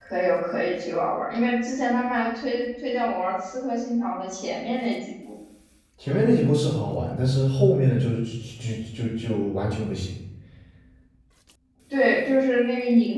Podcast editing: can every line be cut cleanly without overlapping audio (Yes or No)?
Yes